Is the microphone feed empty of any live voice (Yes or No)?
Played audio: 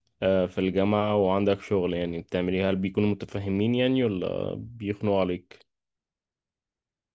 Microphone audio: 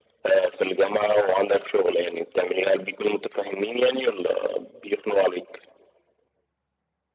Yes